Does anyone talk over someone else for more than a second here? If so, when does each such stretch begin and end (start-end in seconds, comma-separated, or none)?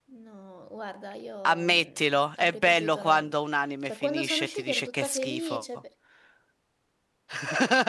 1.5-3.3, 3.8-5.6